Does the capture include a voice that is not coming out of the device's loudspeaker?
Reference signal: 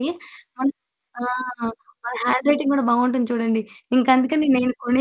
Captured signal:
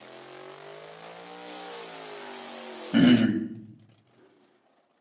Yes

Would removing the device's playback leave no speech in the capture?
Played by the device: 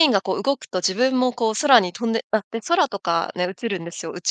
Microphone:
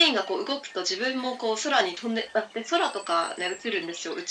Yes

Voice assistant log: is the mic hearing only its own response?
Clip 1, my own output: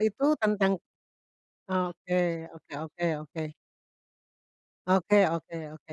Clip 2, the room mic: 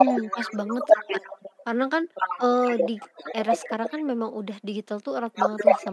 No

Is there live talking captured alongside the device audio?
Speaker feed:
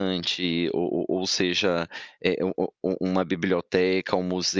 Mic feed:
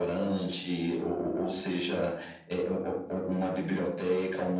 No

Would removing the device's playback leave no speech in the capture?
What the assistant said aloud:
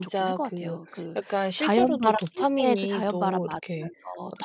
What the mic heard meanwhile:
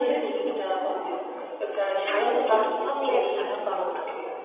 No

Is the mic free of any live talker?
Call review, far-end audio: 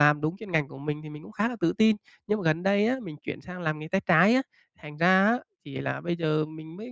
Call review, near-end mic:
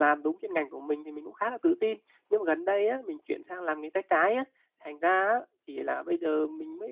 Yes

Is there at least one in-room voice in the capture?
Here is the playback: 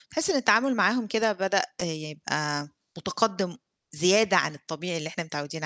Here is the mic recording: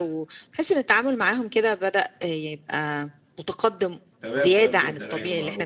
Yes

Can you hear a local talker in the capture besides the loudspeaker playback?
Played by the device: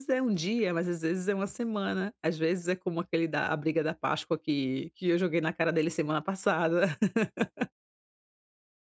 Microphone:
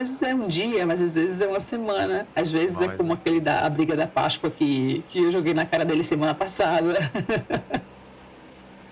Yes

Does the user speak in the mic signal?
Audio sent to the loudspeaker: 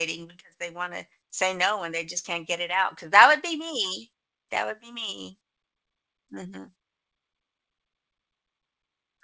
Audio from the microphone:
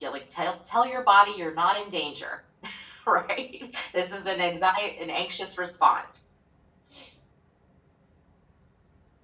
Yes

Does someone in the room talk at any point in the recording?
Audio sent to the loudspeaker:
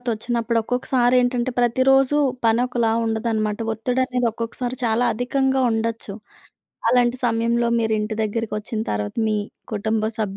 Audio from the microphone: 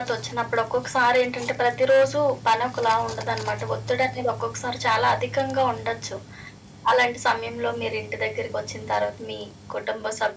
No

